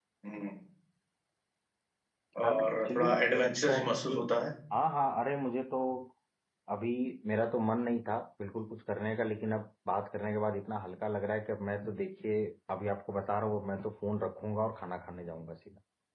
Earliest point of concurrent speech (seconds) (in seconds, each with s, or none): 2.5 s